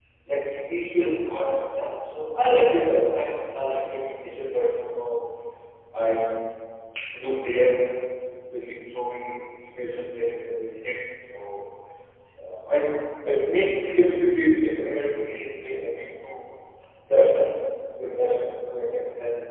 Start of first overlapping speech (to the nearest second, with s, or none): none